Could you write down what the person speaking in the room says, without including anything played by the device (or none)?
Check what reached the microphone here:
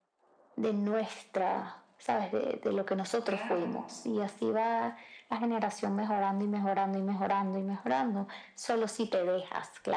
Claro,